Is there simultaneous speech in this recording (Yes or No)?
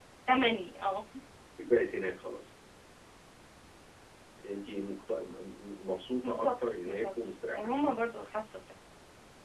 Yes